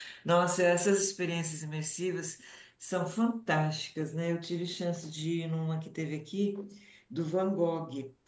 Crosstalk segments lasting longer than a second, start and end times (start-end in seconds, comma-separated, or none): none